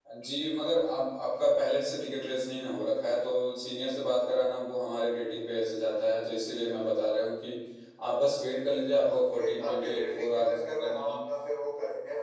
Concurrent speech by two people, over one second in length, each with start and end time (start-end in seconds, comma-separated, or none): 9.1-11.2